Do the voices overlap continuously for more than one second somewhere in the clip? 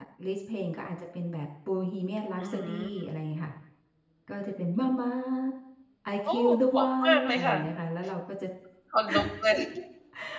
Yes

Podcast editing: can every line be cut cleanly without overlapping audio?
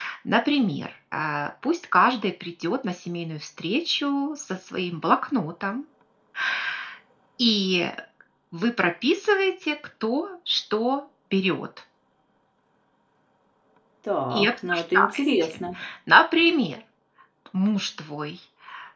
No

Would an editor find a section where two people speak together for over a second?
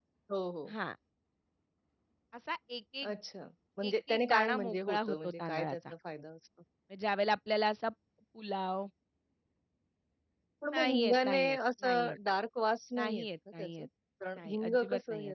Yes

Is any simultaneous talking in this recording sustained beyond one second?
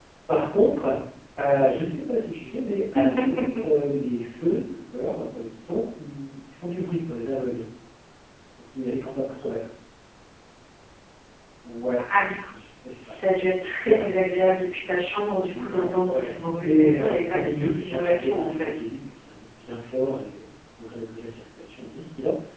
Yes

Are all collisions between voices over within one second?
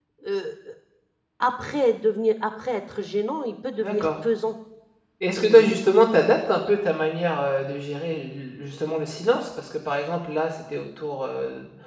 Yes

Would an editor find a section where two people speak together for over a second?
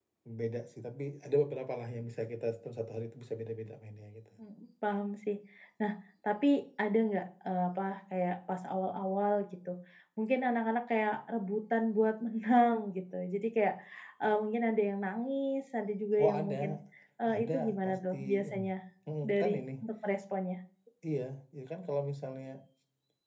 Yes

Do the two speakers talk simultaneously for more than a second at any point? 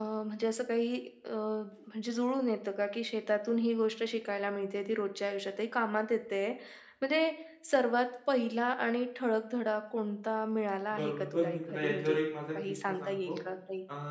Yes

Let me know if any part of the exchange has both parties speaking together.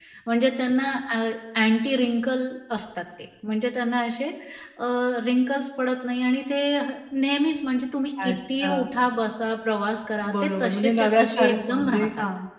Yes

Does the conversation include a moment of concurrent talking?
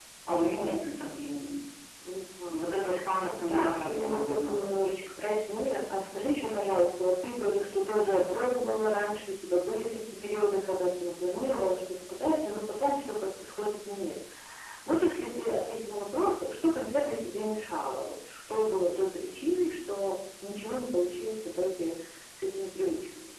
Yes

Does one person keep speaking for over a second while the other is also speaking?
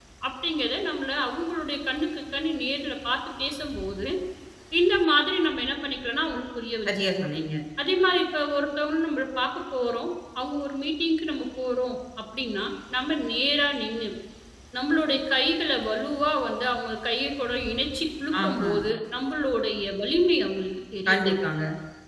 No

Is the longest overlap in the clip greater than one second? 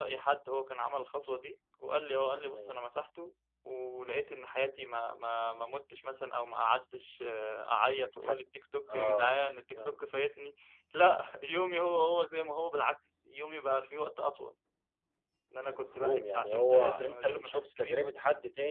Yes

